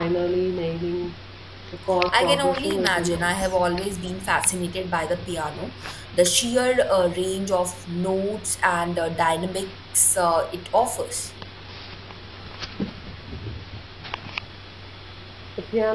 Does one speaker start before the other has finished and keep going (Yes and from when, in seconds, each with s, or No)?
Yes, from 2.1 s